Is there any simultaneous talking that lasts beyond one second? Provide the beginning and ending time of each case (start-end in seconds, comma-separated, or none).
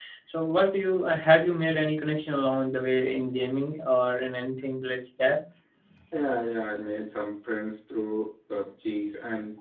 none